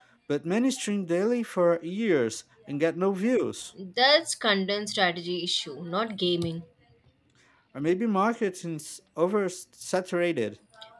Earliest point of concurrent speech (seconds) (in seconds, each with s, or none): none